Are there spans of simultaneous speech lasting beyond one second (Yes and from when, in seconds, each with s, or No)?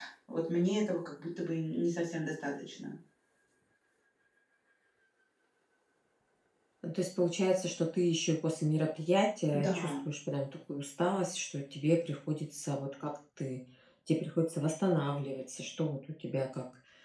No